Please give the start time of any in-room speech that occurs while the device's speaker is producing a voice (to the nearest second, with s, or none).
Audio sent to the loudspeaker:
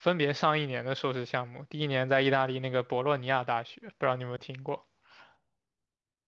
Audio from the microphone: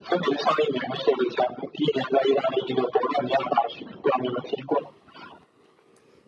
none